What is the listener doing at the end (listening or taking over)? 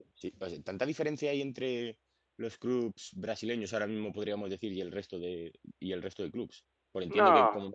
listening